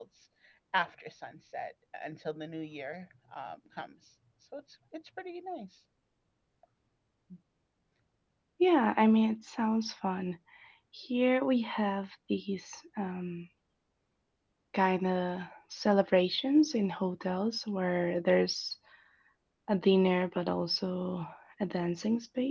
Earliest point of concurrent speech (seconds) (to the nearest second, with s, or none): none